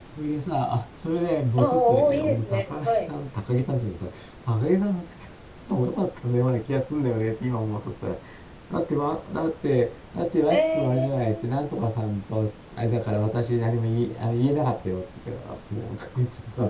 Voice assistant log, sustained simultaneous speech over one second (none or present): present